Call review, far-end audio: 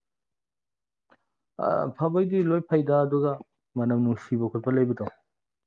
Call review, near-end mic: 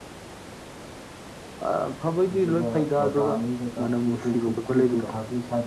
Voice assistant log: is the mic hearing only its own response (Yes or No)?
No